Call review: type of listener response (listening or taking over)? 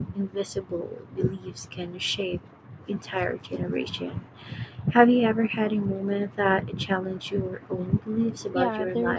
taking over